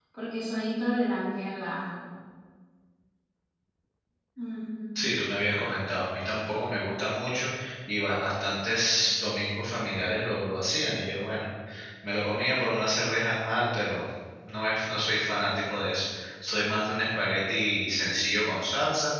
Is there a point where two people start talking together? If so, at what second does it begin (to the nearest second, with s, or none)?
none